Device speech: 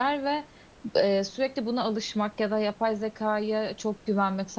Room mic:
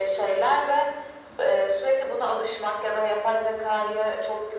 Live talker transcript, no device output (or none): none